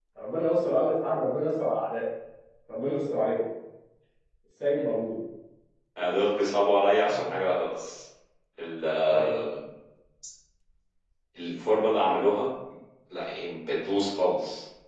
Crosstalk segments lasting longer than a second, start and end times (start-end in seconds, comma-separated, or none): none